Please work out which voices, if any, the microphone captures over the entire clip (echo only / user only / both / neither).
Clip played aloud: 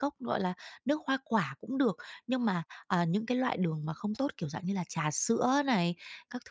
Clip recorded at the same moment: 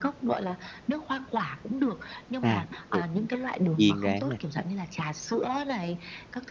both